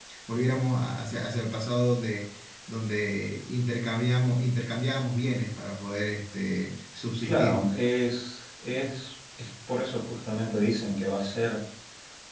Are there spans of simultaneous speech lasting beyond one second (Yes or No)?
No